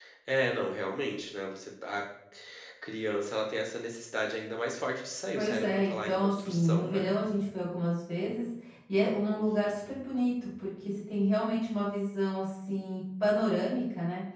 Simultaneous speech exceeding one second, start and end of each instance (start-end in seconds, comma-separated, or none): 5.3-7.1